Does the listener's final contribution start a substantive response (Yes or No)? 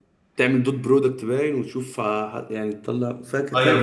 Yes